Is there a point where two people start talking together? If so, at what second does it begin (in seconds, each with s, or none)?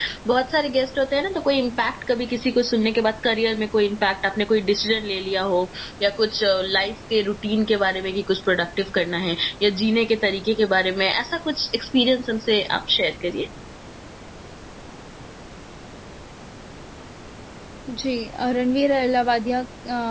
none